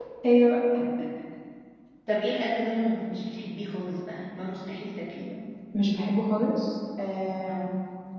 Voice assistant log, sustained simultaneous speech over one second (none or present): none